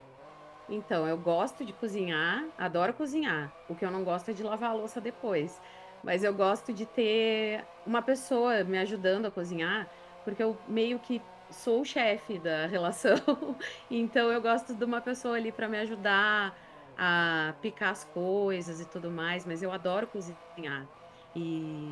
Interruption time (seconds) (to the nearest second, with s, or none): none